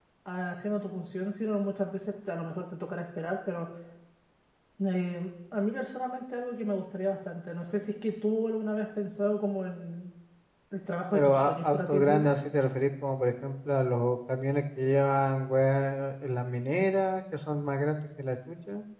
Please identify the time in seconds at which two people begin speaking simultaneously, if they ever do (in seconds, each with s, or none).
11.1 s